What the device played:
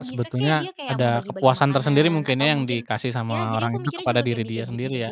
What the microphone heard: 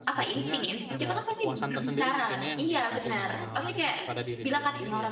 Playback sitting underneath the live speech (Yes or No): Yes